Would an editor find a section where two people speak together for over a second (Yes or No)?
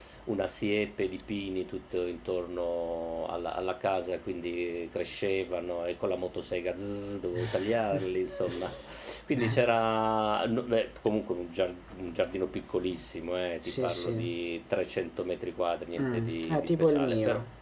Yes